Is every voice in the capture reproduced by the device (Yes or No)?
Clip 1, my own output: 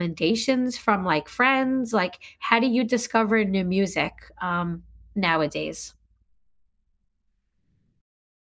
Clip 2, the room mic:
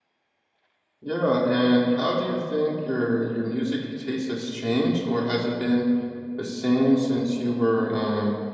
No